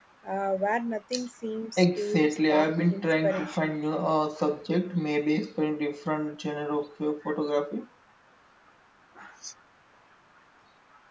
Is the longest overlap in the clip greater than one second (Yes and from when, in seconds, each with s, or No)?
Yes, from 1.8 s